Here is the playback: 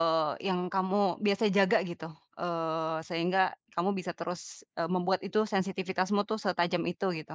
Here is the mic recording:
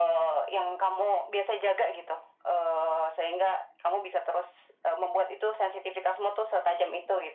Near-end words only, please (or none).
none